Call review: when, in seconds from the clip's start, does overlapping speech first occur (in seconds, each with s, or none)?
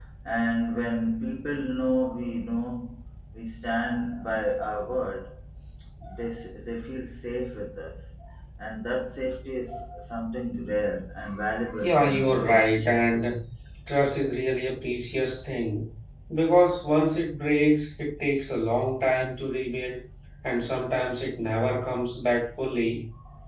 11.8 s